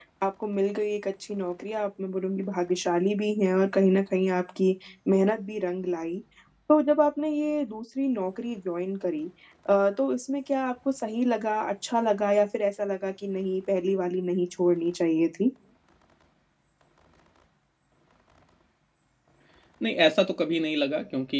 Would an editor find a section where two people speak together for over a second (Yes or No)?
No